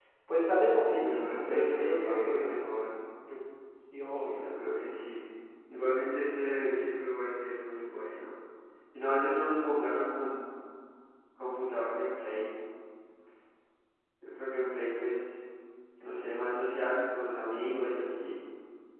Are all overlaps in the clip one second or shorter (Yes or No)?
No